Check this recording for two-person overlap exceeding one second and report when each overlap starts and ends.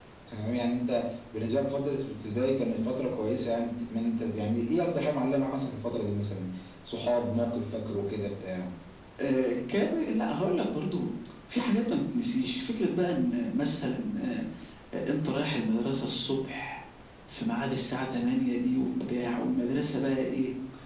none

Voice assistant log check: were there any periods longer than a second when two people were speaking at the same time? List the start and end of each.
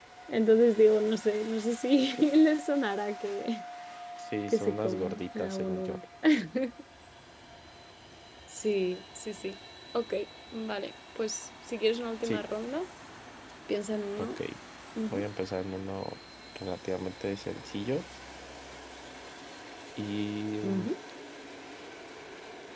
4.5-6.0

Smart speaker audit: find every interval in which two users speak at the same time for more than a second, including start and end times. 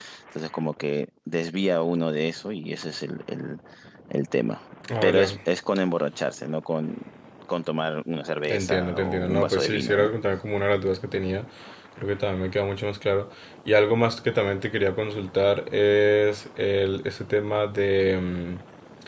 8.4-10.1

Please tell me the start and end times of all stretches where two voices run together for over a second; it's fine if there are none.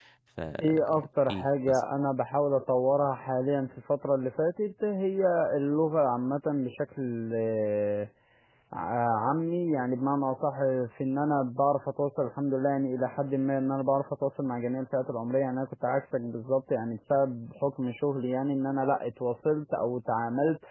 0.6-1.8

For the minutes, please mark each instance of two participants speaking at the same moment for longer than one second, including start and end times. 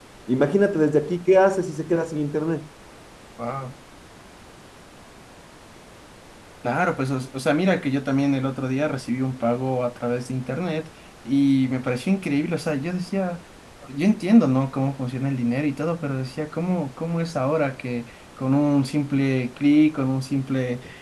none

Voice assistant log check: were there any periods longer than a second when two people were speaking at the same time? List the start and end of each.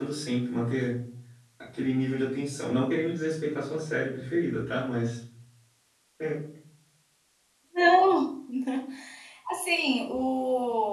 none

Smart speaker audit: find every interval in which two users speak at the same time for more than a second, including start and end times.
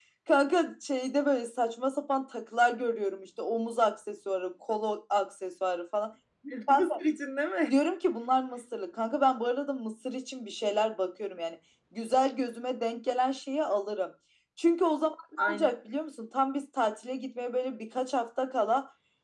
none

